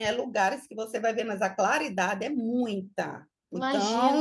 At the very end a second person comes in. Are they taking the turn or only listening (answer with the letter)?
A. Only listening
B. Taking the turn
B